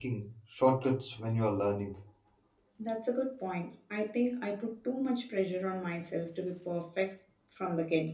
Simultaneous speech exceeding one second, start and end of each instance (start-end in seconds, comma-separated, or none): none